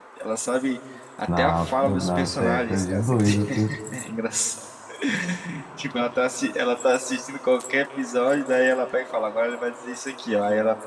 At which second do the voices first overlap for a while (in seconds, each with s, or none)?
1.4 s